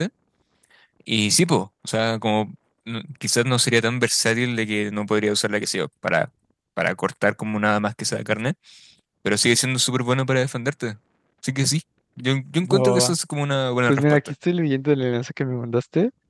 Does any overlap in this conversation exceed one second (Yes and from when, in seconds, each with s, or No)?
No